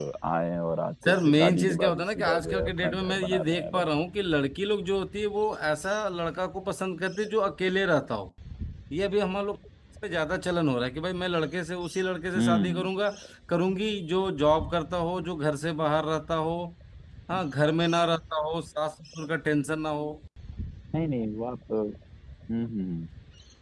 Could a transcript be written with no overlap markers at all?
No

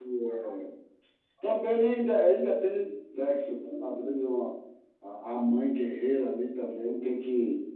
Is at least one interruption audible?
No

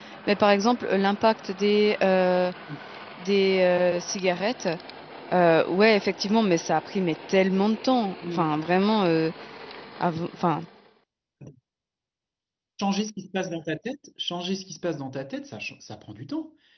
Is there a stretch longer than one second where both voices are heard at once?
No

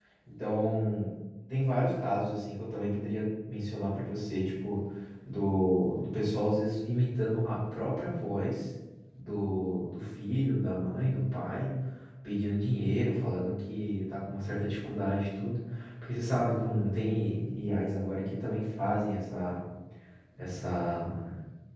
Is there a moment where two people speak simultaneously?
No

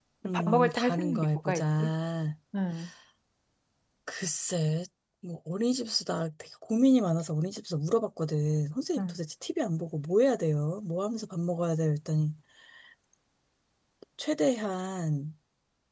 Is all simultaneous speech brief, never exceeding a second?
No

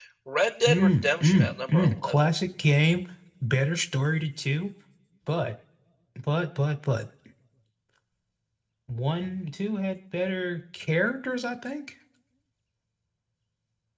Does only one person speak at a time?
No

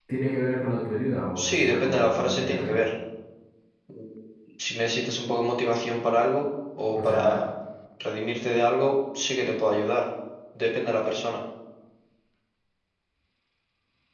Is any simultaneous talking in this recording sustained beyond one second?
Yes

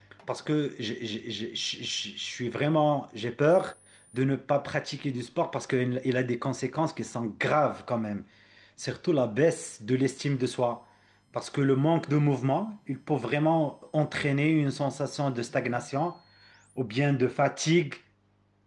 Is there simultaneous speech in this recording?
No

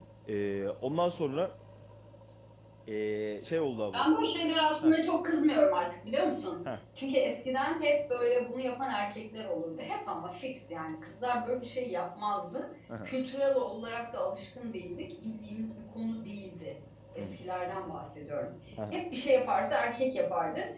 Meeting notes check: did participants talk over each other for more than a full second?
No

